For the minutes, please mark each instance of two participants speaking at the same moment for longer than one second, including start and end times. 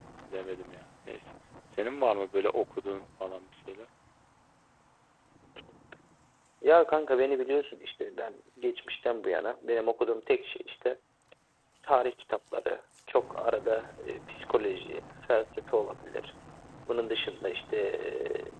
none

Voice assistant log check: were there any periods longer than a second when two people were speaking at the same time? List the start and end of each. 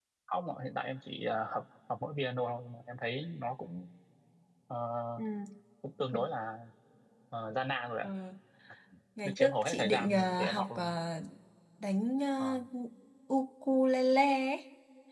9.2-11.0

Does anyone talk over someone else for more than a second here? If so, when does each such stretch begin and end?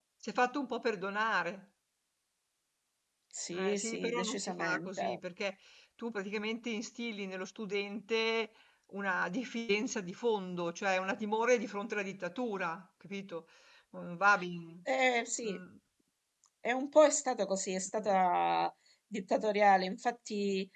3.7-5.2

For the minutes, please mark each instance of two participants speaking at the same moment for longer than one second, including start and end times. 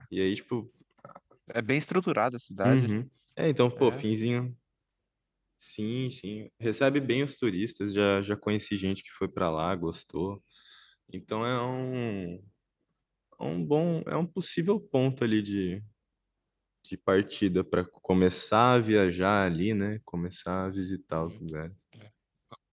none

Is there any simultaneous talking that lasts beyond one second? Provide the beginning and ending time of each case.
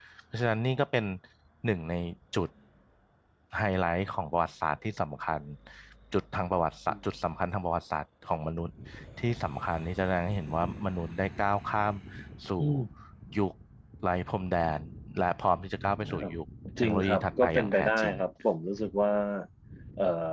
16.8-18.1

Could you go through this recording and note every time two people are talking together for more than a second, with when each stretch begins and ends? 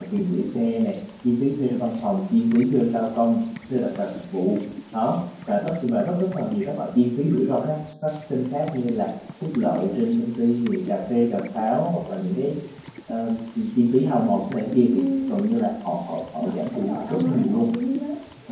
16.4-17.7

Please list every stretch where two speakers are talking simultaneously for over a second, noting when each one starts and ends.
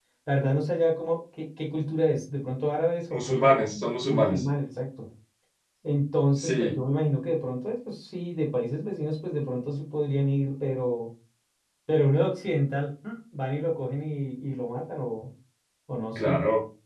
3.1-4.4

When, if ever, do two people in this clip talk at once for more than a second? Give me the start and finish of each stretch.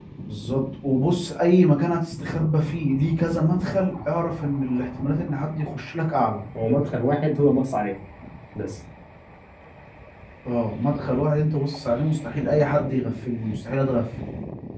none

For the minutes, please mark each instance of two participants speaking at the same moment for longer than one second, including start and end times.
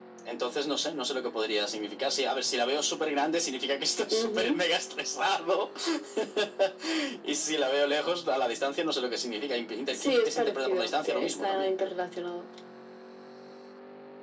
9.9-11.7

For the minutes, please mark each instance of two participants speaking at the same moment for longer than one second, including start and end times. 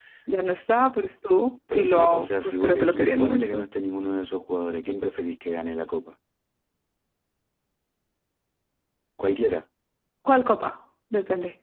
1.7-3.7

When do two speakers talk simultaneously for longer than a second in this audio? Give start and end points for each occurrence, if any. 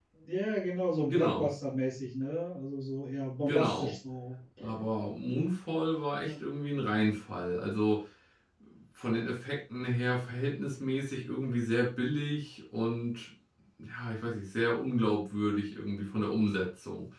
none

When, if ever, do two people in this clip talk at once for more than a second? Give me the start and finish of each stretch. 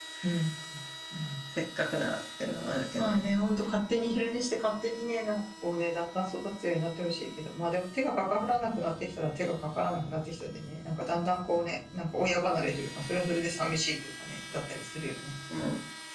none

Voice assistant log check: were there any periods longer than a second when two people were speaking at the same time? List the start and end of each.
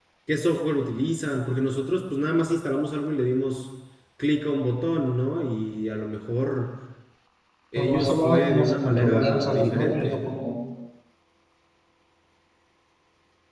7.8-10.2

